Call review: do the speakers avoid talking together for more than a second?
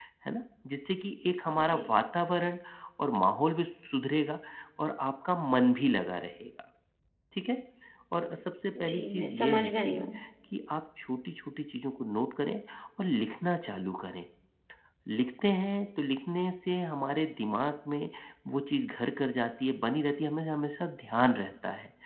No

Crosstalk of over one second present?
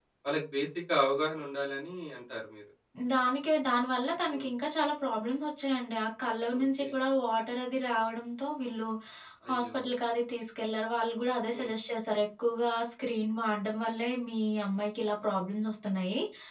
No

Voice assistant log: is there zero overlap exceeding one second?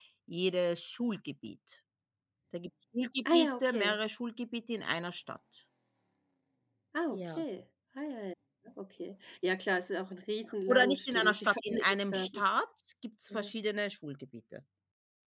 No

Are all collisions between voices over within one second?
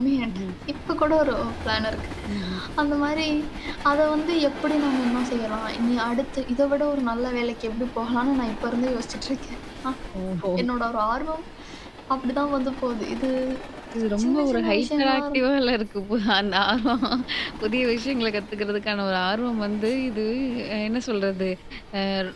No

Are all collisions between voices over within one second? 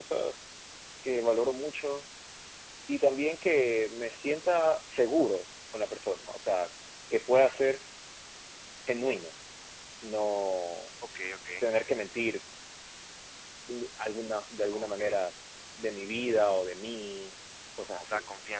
Yes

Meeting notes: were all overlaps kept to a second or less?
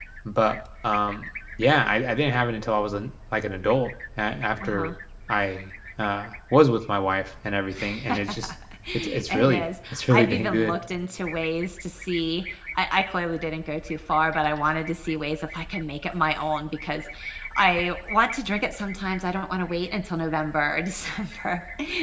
No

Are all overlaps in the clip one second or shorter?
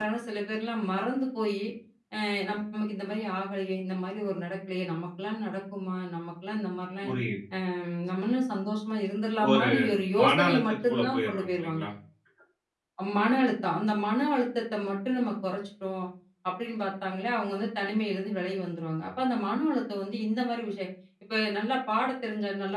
No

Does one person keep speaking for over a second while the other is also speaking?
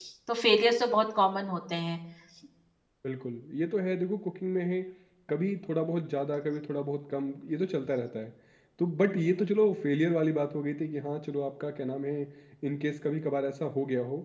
No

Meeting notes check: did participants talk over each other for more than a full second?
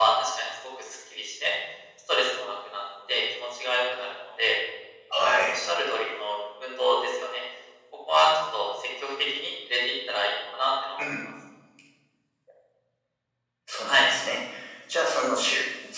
No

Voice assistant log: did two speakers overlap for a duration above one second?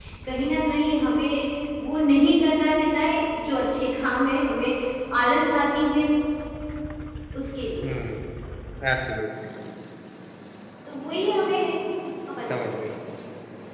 No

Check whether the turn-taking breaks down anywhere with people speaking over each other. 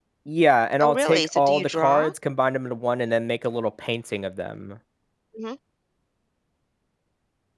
Yes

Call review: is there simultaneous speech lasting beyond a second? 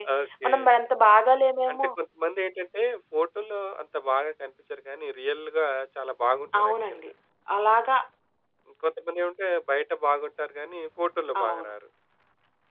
No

